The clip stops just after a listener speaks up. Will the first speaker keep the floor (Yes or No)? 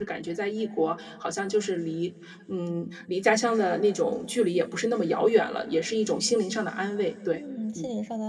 No